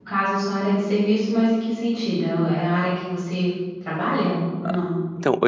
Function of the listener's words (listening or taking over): taking over